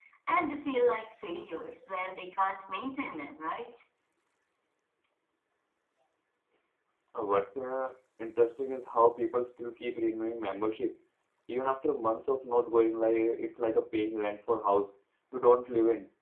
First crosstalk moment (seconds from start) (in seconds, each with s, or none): none